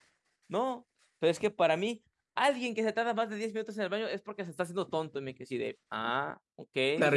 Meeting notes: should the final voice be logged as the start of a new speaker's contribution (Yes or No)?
Yes